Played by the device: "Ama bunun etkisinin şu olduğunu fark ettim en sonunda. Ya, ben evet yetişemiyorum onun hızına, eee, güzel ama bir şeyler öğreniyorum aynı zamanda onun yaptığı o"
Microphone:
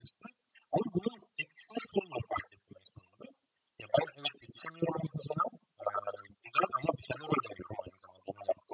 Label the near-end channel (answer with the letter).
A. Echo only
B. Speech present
A